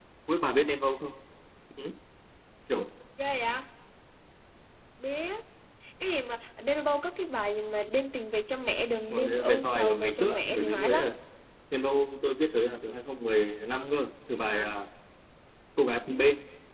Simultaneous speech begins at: 9 s

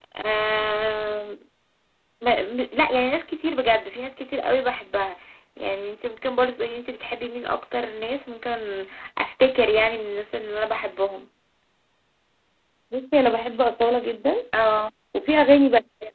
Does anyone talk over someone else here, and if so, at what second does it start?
none

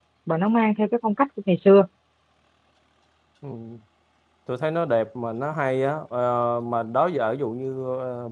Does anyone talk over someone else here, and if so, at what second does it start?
none

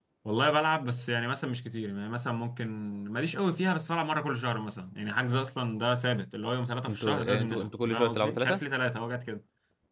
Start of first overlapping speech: 7 s

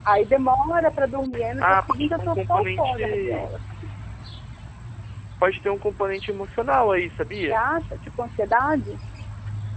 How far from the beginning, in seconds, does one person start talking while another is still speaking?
1 s

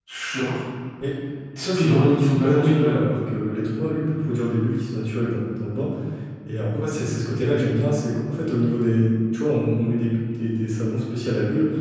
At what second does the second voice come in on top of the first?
2 s

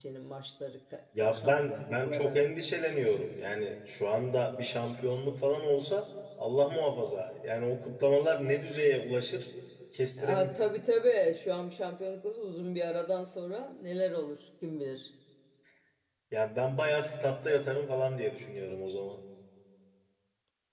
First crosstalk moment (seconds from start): 1 s

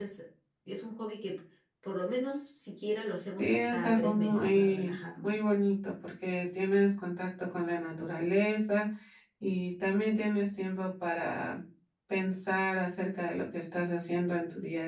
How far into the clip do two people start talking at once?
3 s

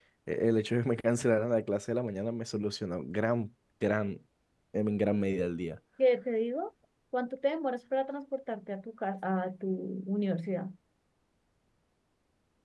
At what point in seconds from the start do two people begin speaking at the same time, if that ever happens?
none

